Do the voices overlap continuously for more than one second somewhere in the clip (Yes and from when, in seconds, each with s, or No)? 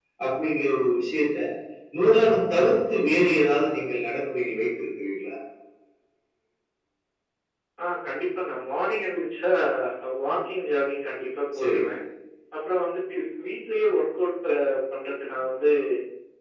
No